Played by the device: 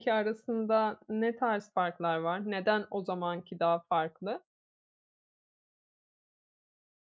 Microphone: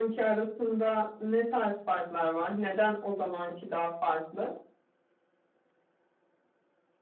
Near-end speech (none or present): none